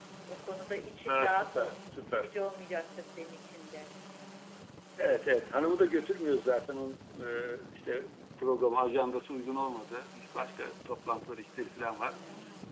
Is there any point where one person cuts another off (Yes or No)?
Yes